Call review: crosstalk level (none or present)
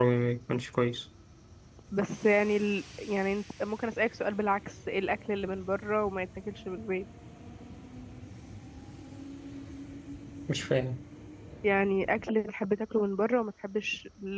none